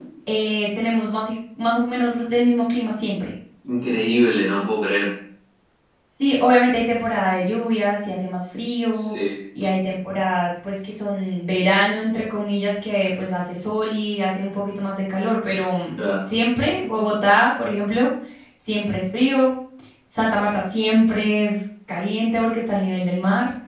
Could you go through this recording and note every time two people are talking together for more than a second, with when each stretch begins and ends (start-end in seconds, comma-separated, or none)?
none